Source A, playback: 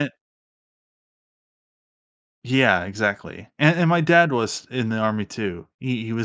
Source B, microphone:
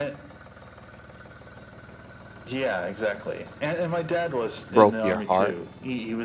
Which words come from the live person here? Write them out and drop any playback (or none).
broke your heart?